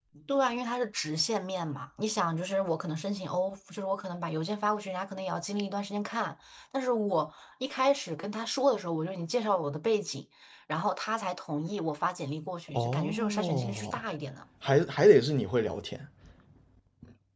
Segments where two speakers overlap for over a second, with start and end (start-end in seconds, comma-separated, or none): 12.7-14.0